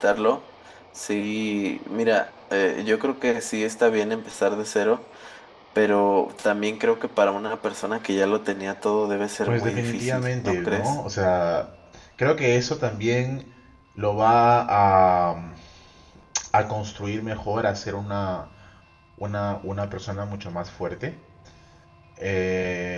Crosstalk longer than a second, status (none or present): present